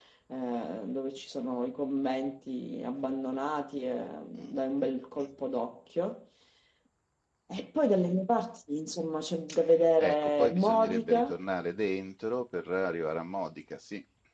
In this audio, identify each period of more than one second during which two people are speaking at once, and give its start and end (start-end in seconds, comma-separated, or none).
10.0-11.4